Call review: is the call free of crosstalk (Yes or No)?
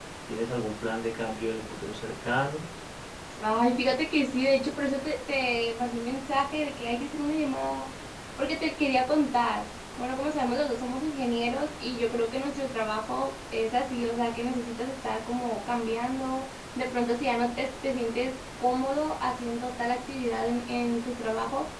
Yes